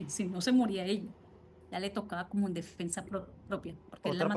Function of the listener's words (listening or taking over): taking over